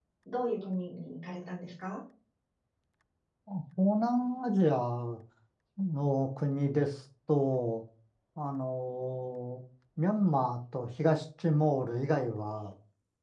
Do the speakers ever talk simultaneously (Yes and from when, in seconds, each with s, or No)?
No